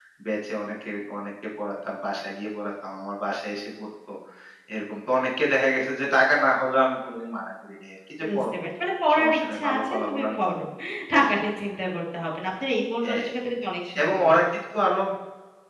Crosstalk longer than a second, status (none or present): present